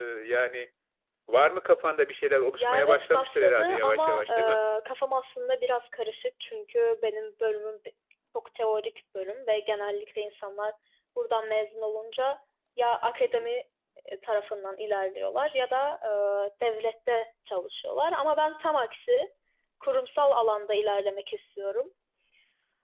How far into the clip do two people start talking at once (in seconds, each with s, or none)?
2.6 s